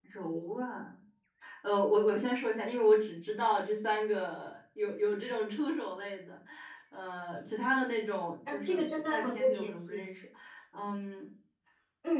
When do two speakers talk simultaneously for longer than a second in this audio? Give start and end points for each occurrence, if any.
8.5-10.1

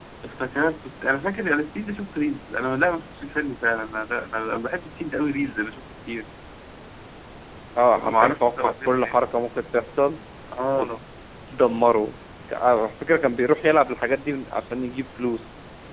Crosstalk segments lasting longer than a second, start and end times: 7.9-9.2

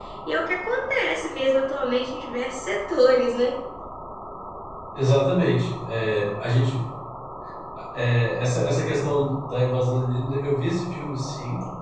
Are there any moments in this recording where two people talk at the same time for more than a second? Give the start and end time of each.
none

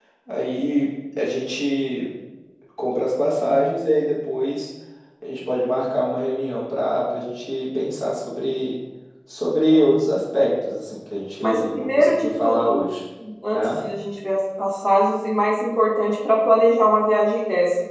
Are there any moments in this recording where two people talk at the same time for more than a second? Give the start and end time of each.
11.4-12.8

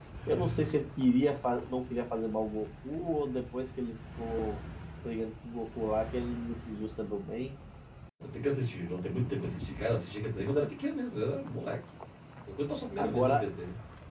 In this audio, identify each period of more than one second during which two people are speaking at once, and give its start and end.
none

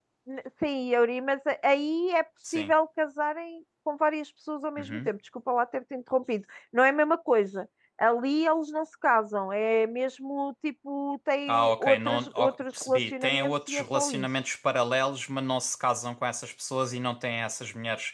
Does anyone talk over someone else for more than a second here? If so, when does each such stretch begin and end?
11.5-14.3

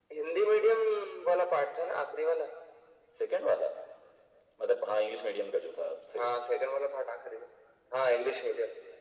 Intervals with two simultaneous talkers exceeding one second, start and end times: none

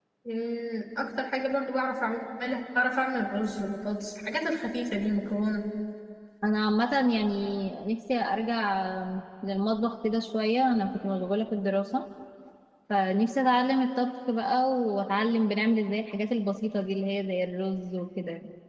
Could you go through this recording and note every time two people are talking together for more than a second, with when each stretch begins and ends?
none

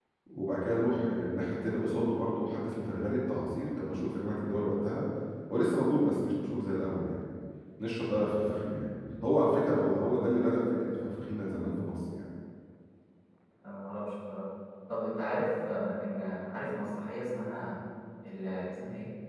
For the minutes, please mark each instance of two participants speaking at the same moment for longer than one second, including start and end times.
none

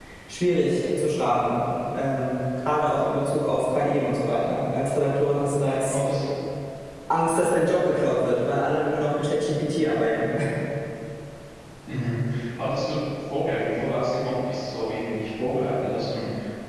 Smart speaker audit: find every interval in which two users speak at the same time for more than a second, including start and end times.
none

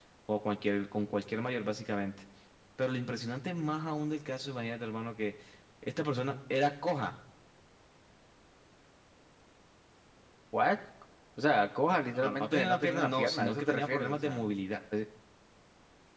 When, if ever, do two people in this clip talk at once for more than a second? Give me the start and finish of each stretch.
12.1-14.5

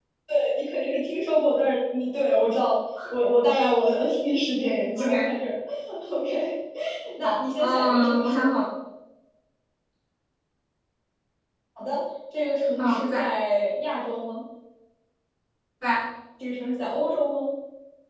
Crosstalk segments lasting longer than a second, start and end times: 7.2-8.5

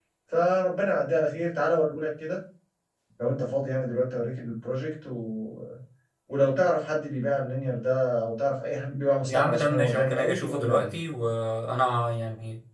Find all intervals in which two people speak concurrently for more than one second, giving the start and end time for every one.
9.3-10.9

